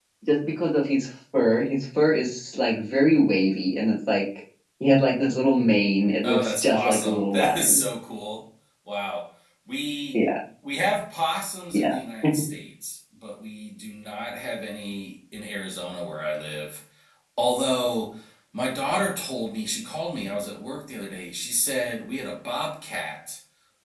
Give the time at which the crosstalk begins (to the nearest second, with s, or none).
6 s